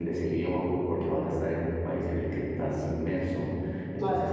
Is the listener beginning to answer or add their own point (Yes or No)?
No